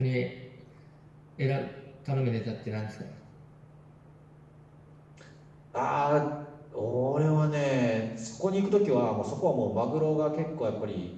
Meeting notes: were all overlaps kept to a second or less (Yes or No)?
Yes